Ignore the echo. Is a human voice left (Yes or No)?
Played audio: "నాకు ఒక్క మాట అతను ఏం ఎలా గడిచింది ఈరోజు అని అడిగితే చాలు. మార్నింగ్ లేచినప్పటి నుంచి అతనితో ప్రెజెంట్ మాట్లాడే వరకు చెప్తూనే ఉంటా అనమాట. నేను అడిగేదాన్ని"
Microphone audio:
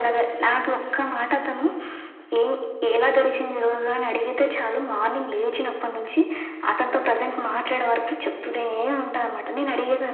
No